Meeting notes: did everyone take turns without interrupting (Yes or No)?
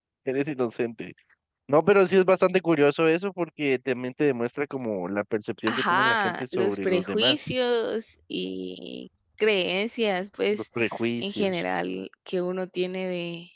No